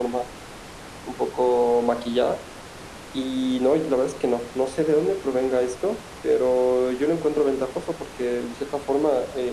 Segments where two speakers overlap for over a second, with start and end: none

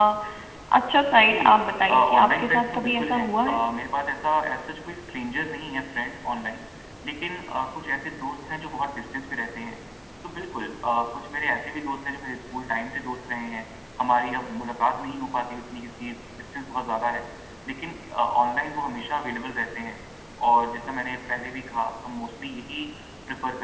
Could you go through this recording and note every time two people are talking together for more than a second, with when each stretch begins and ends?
1.9-3.6

